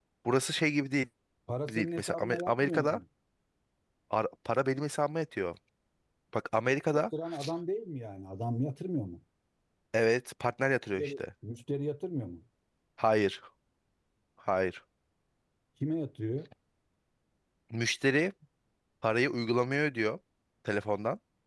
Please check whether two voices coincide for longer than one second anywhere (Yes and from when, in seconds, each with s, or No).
Yes, from 1.7 s